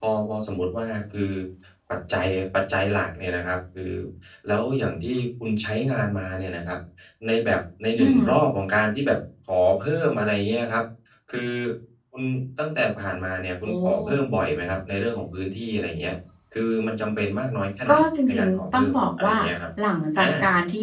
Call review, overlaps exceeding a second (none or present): present